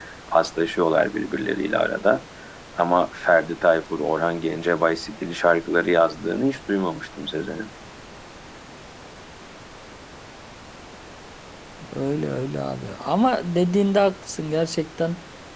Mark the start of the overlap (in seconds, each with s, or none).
none